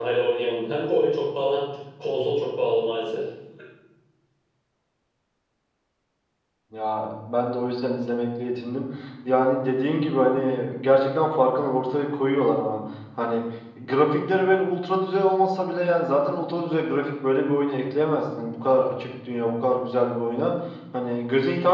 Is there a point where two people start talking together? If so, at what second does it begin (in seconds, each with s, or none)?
none